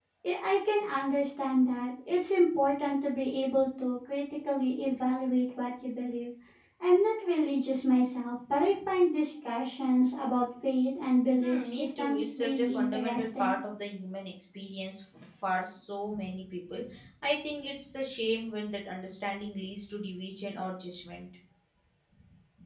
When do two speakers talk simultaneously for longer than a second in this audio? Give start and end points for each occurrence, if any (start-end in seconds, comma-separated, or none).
11.4-13.6